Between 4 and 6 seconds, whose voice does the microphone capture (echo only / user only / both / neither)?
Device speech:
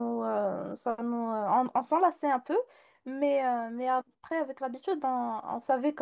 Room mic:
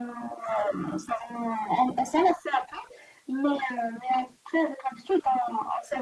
echo only